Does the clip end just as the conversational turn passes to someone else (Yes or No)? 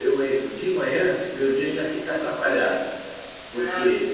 Yes